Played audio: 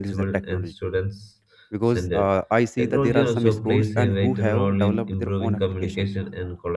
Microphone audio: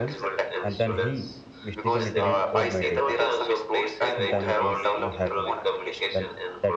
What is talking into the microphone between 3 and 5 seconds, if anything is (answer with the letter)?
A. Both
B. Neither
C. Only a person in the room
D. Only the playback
A